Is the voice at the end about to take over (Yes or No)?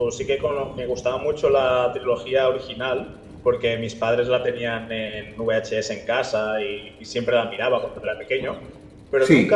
No